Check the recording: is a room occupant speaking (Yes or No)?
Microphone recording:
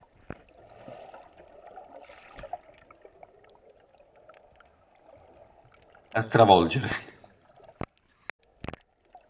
Yes